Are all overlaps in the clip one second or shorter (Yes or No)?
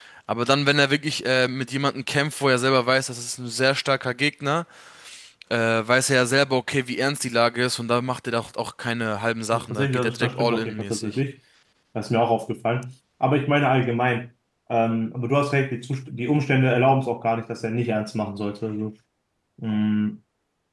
No